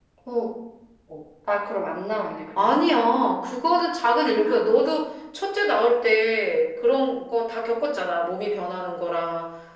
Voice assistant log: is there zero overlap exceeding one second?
Yes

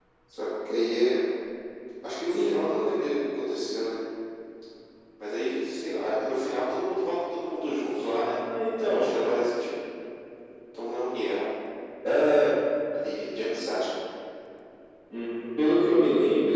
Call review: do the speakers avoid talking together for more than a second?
Yes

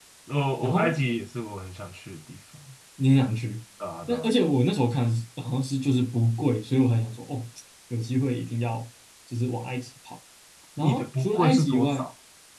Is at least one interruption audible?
Yes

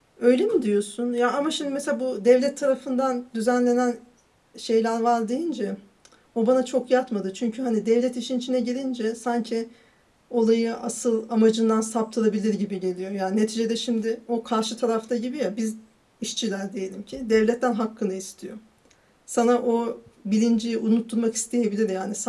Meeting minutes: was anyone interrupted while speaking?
No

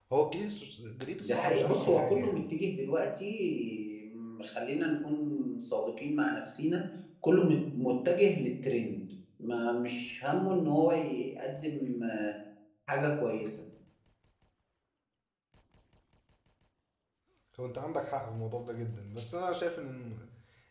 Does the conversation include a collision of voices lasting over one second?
Yes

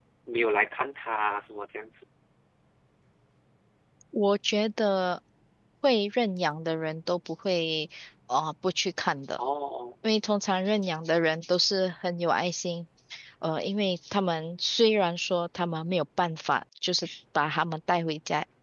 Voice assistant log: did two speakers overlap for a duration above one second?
No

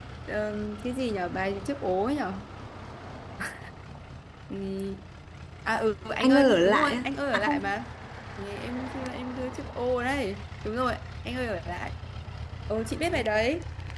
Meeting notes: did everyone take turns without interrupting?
No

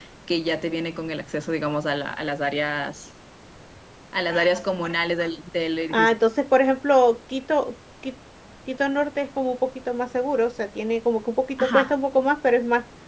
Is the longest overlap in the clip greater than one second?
No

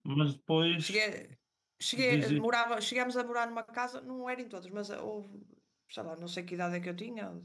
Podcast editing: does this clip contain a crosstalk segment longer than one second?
No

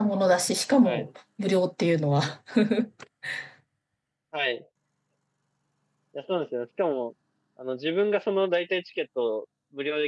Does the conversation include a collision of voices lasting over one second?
No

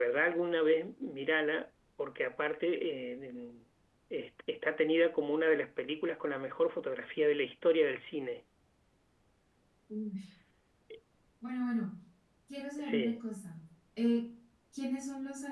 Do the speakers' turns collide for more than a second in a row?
No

